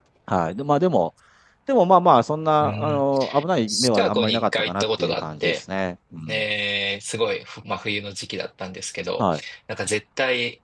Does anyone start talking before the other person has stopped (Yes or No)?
Yes